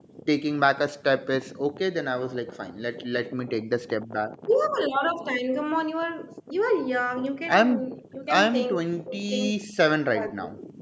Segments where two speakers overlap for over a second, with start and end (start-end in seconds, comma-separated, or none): none